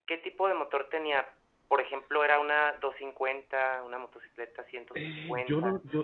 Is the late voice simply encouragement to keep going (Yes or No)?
No